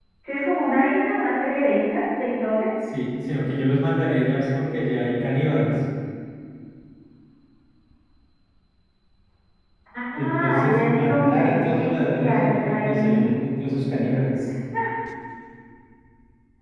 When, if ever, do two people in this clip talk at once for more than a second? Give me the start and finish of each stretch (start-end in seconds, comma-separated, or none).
10.2-13.4